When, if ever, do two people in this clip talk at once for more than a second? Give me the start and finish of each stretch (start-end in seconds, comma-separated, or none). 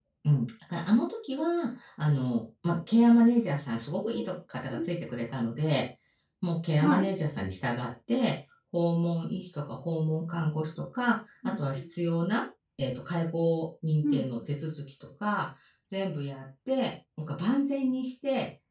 none